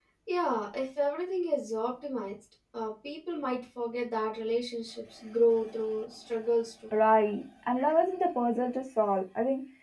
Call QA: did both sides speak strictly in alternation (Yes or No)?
Yes